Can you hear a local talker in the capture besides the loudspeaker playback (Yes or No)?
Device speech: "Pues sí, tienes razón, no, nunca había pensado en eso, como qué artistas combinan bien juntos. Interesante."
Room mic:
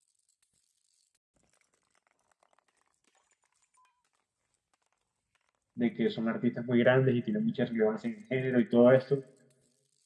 Yes